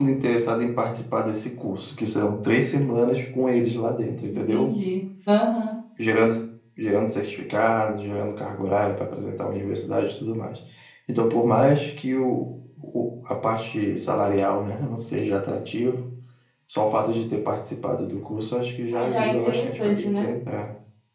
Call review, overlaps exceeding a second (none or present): present